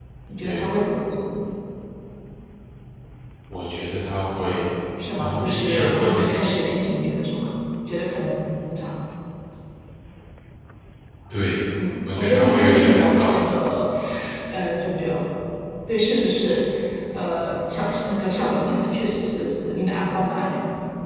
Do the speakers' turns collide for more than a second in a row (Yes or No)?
Yes